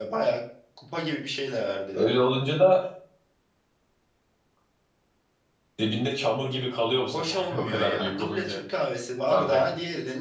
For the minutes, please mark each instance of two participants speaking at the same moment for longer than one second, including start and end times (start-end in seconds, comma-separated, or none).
7.0-8.6